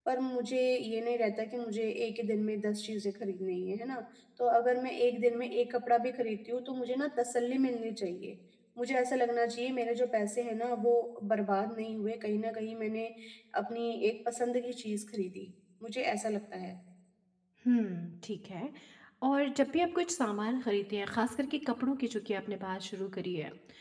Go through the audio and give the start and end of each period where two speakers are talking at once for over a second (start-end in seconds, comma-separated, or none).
none